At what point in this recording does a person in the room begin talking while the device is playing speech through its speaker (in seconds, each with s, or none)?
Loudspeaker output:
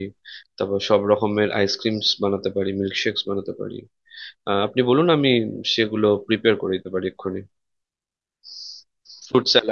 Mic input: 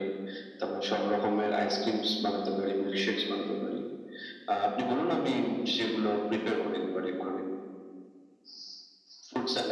none